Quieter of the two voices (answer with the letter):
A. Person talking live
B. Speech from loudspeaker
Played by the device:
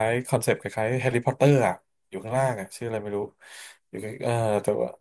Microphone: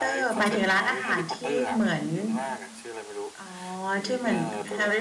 B